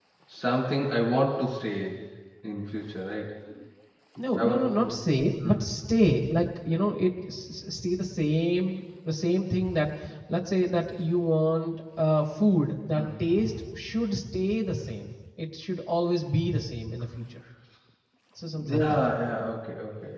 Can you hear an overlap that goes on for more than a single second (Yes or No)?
No